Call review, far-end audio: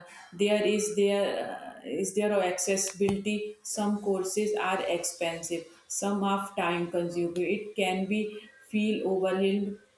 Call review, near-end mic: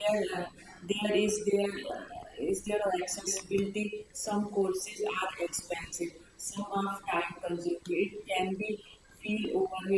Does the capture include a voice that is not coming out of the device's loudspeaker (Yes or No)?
No